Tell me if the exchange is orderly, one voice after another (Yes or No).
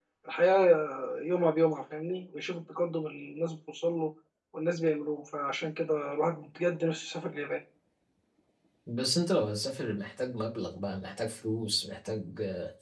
Yes